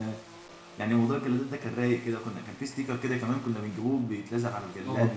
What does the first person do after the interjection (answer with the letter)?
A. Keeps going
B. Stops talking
A